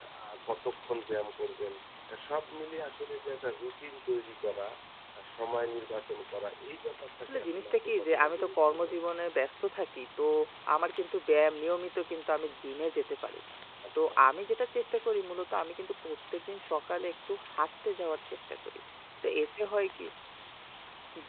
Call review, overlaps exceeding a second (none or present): present